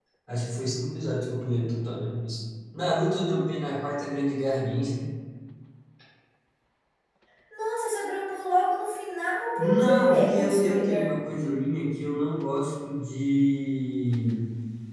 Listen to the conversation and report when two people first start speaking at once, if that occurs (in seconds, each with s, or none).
9.6 s